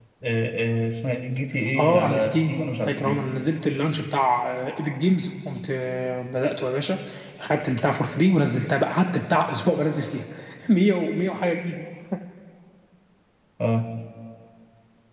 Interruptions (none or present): present